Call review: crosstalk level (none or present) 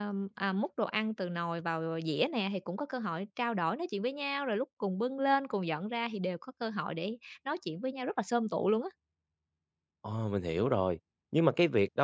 none